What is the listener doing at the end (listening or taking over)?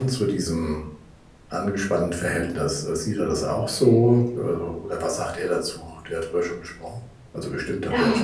taking over